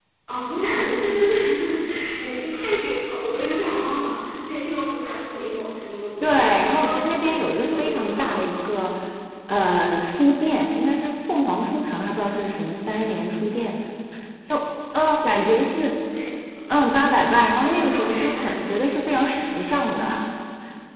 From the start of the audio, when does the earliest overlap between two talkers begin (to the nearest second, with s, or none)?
6 s